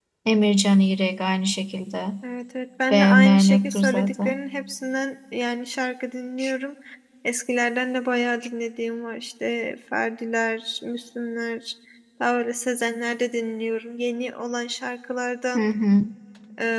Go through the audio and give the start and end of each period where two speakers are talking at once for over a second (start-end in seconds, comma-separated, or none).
2.9-4.3